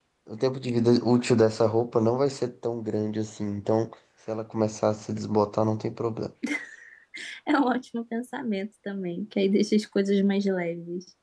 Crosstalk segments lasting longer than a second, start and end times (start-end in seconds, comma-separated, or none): none